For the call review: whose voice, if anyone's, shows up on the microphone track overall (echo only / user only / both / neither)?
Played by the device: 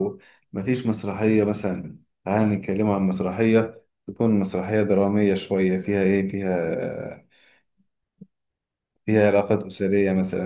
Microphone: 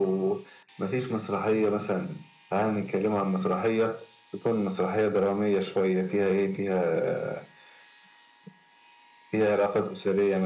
echo only